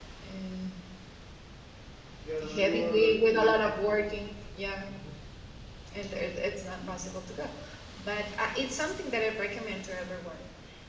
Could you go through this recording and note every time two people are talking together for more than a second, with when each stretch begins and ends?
2.5-3.8

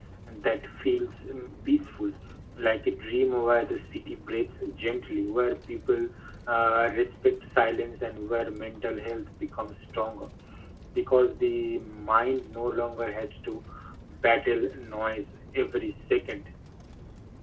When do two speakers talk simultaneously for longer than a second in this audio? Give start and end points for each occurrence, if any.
none

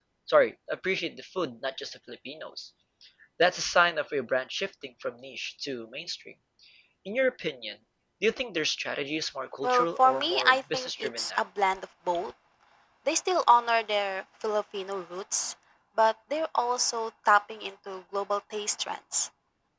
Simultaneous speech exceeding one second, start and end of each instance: 9.6-11.4

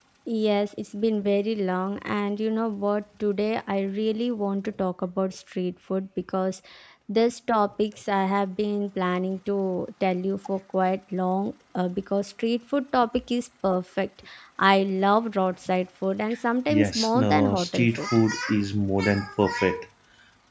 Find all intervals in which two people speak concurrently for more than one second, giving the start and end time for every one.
16.7-18.1

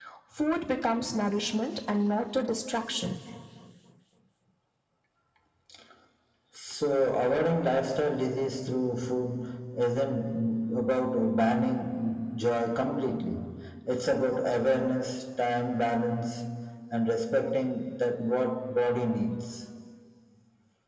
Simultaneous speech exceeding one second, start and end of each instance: none

